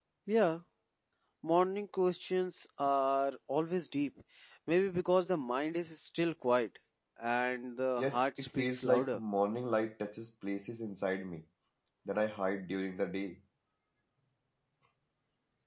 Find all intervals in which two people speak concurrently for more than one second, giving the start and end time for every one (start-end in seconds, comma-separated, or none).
8.0-9.2